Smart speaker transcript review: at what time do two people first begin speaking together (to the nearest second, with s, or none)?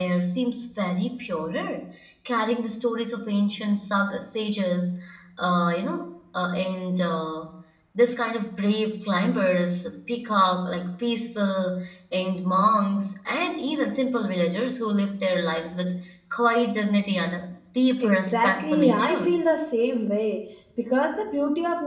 18 s